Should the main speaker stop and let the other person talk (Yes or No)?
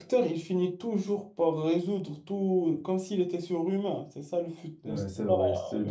Yes